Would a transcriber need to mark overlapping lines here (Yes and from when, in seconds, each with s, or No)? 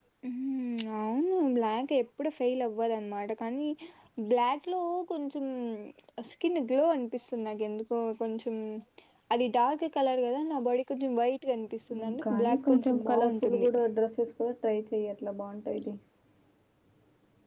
Yes, from 11.9 s